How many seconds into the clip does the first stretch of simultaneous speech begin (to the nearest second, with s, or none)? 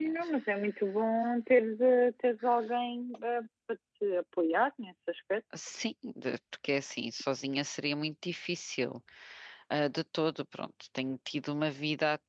none